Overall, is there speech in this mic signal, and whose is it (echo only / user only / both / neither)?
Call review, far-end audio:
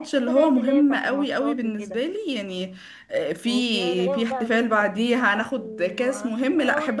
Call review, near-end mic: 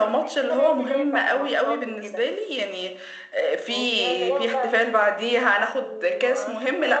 echo only